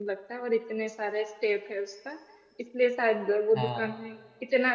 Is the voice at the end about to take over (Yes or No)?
No